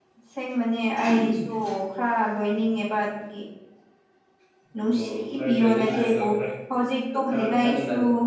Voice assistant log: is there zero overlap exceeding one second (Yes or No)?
No